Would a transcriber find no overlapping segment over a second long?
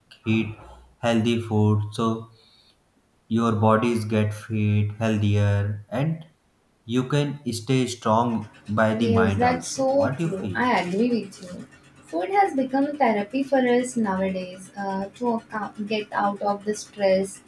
No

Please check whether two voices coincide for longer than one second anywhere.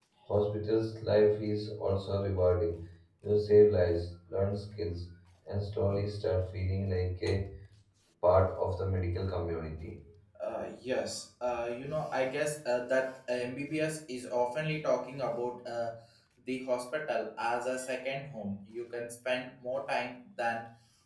No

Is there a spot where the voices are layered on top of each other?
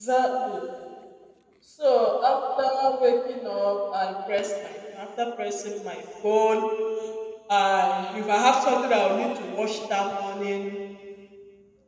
No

